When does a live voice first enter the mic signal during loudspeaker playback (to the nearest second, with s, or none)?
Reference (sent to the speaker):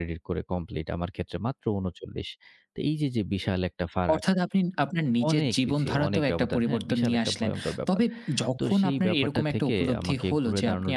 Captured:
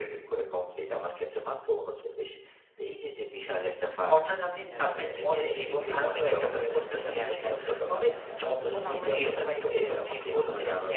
5 s